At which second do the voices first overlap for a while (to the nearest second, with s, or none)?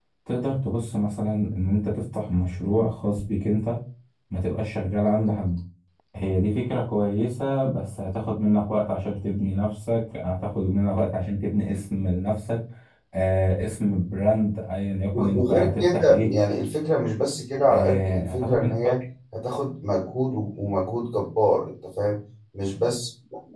15 s